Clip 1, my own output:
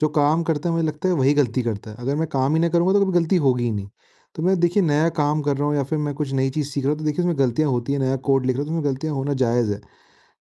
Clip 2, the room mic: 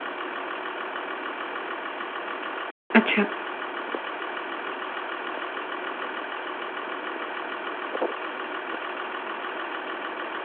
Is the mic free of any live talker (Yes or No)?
No